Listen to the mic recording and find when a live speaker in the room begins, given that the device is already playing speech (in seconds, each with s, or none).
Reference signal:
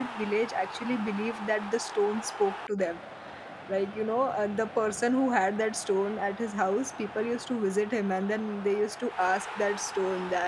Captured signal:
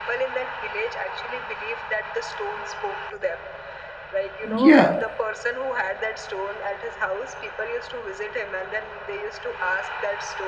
4.5 s